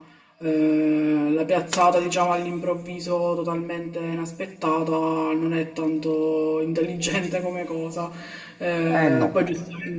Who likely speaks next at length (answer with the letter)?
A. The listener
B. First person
B